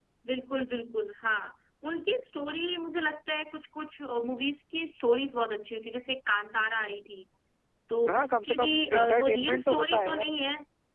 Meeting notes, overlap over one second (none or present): present